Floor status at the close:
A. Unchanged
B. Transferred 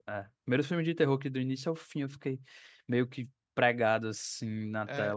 B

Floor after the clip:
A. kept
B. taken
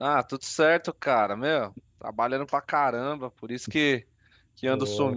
A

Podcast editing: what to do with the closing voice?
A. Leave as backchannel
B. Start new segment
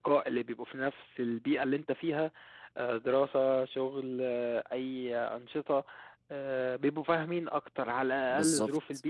B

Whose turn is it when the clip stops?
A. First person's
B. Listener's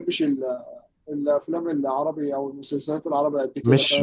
B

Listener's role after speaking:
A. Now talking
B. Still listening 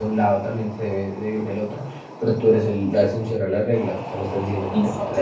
A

